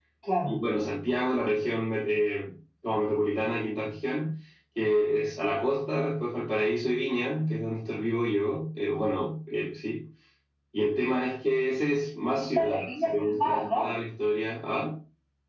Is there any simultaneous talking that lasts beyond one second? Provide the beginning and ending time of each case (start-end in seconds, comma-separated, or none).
12.4-13.8